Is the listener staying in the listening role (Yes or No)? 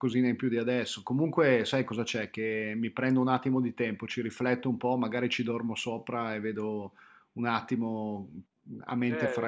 No